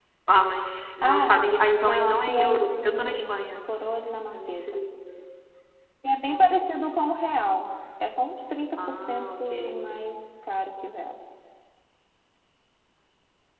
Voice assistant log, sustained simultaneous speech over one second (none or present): present